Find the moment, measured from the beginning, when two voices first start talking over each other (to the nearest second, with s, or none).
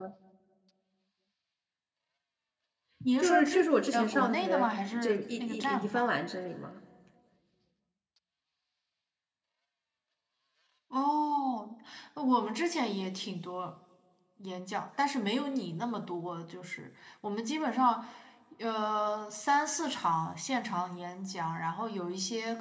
3 s